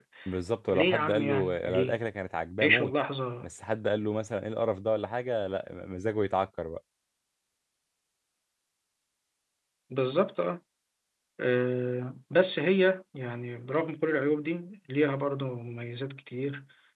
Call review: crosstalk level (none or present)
present